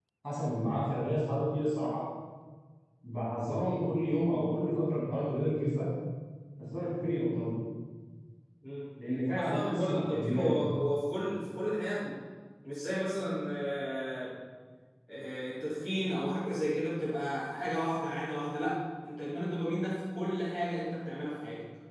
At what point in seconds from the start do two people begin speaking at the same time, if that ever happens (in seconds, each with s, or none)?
9.4 s